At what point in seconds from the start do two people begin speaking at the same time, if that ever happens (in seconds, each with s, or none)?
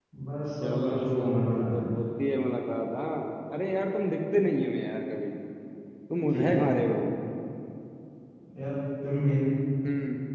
0.6 s